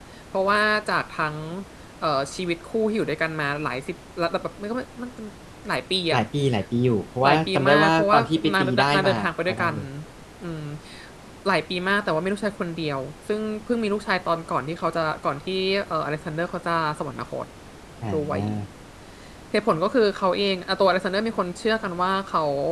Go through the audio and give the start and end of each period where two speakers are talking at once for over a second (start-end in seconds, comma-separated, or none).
7.2-9.8